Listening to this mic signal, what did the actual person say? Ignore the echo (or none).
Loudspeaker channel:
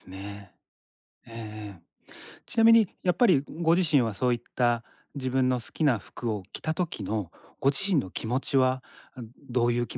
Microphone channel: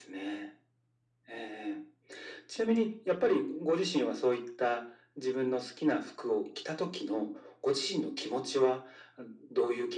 none